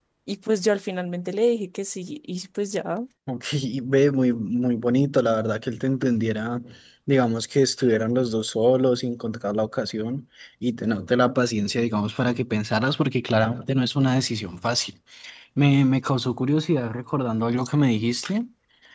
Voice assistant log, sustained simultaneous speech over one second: none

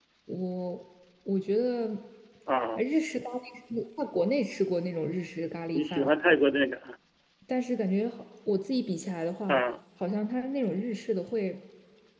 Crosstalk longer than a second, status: none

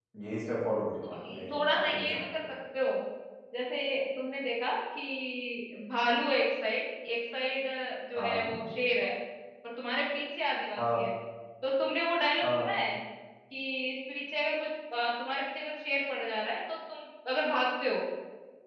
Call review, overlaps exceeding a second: present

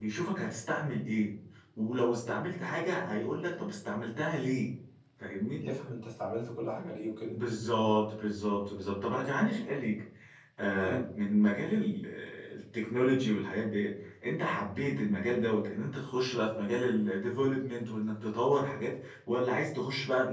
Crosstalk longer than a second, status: none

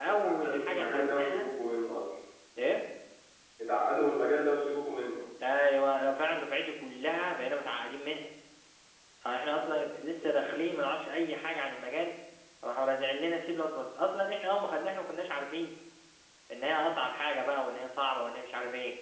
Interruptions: present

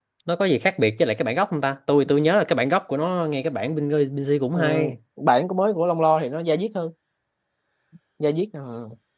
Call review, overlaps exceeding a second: none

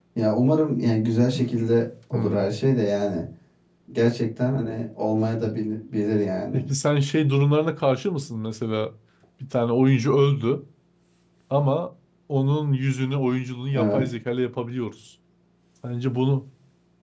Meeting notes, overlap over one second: none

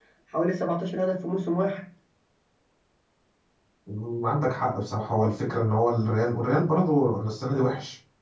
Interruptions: none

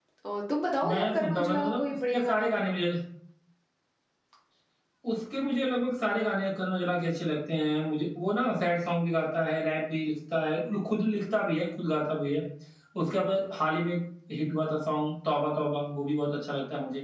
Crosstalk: present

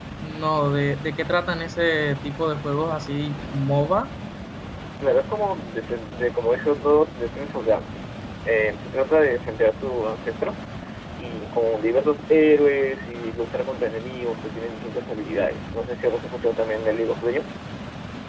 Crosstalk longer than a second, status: none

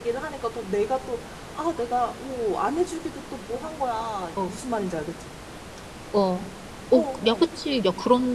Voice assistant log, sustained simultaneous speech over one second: none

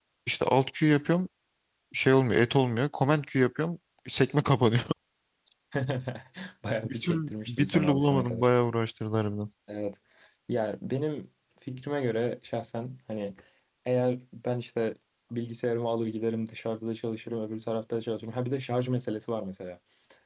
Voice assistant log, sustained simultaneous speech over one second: present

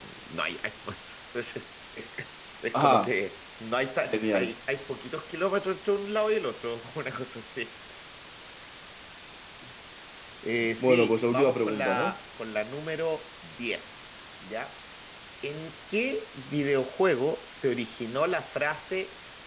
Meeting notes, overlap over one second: present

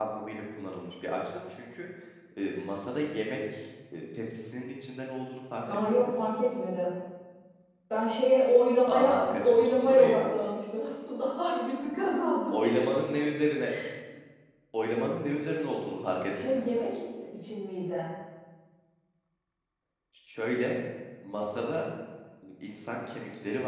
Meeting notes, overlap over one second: present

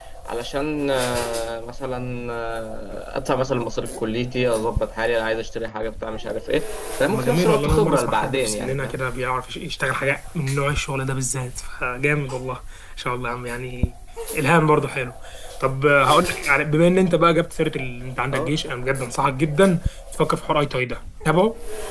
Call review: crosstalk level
present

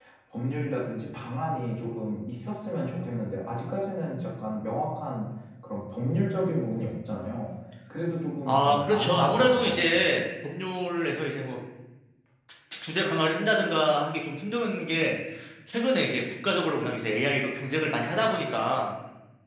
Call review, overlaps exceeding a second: present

